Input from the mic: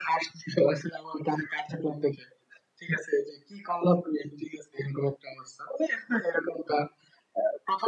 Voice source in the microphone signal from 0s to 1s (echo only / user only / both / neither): echo only